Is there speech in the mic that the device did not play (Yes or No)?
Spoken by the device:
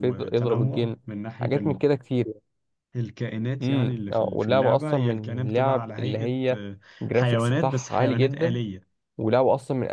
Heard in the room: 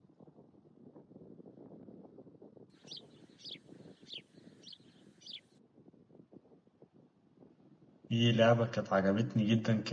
Yes